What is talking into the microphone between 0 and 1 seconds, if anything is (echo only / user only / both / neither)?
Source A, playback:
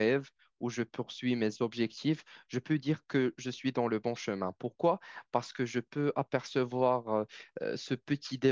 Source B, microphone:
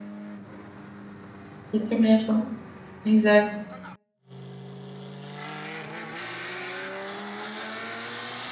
neither